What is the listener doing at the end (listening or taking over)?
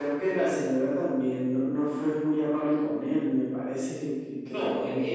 taking over